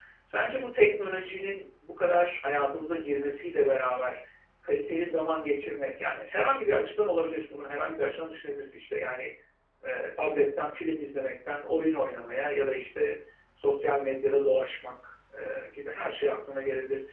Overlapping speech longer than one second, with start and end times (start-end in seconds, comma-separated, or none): none